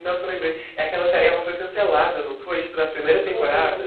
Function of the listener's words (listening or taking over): taking over